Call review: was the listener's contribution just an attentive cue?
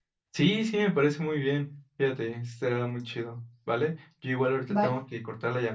Yes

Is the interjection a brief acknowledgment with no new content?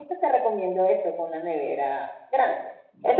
Yes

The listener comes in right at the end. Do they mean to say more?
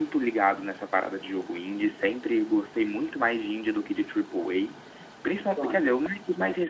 No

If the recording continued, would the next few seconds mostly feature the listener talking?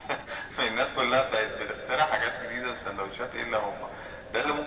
No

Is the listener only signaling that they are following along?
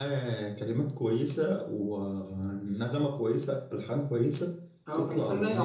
No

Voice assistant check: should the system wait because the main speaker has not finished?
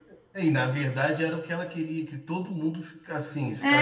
No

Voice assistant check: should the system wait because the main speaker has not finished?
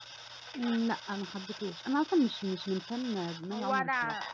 No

